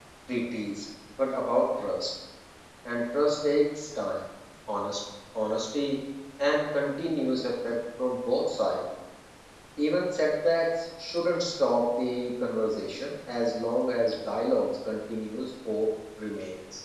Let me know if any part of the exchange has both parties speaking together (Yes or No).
No